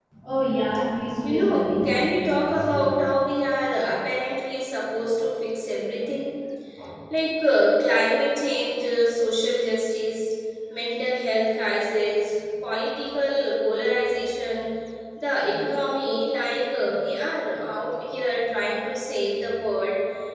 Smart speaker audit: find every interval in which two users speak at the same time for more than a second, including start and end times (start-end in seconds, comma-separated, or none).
1.2-3.0